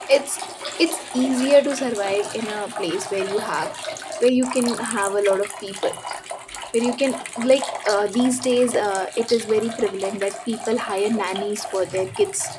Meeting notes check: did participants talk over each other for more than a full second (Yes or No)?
No